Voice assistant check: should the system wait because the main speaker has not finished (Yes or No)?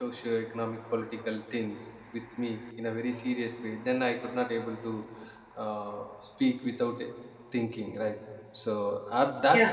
No